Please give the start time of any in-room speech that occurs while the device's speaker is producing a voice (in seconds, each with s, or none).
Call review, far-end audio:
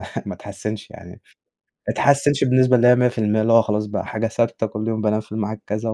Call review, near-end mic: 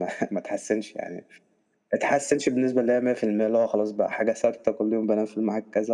none